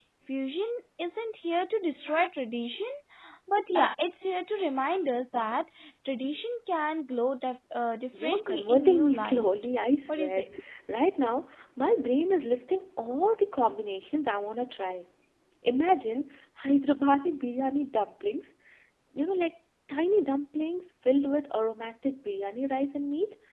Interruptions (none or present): present